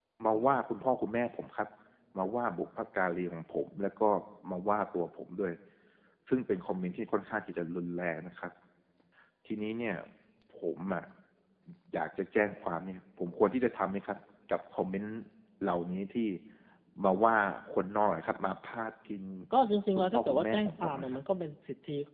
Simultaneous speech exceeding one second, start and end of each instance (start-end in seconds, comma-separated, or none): 19.9-21.2